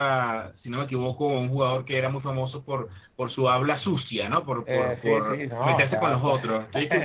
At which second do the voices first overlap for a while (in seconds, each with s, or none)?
4.7 s